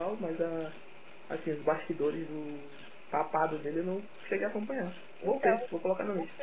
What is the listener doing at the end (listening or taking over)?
taking over